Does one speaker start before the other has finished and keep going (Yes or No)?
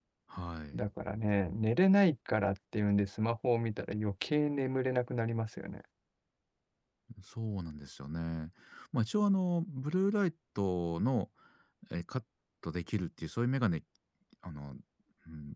No